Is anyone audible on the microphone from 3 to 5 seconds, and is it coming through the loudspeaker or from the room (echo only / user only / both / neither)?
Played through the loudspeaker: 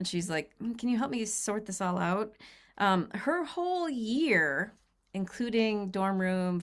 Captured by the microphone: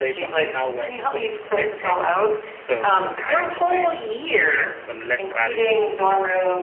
both